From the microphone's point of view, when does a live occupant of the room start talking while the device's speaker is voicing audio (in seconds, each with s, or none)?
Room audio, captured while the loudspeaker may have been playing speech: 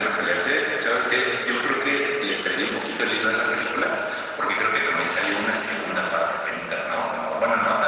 none